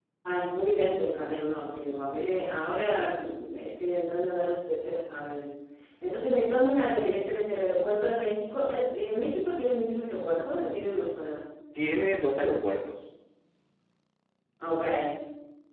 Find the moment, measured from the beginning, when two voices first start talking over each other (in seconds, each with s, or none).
none